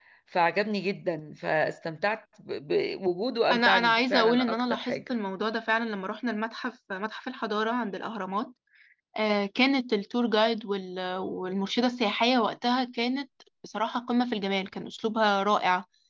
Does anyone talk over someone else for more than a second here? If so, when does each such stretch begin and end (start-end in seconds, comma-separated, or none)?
3.5-5.0